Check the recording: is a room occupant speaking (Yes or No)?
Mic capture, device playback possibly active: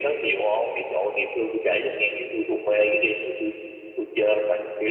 No